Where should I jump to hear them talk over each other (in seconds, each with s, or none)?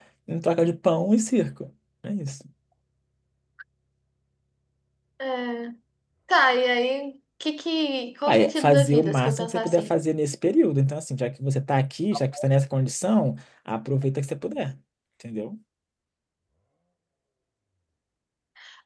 8.3 s